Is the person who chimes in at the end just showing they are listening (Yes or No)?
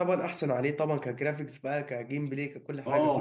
No